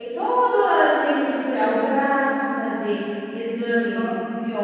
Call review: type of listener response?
listening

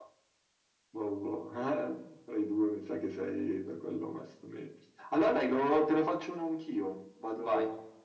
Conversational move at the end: listening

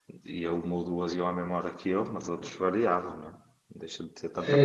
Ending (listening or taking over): taking over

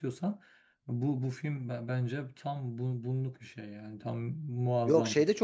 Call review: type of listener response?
taking over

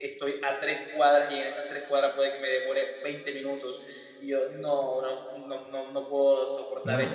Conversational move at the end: taking over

